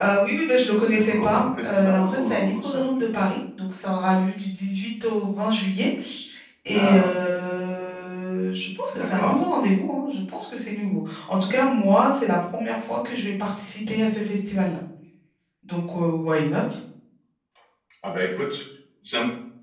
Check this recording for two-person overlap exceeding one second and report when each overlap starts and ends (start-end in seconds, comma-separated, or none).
0.8-3.1